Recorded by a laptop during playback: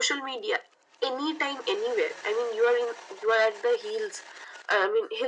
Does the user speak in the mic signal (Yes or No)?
No